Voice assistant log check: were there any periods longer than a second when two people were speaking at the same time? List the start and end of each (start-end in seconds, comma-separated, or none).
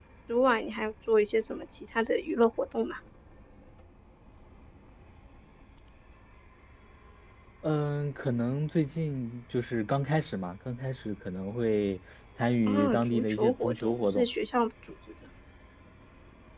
12.7-14.3